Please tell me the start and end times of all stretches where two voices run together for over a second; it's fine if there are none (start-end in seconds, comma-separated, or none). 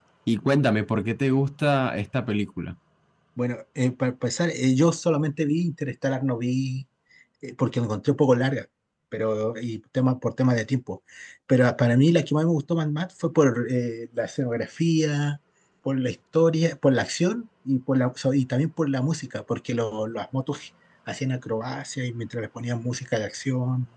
none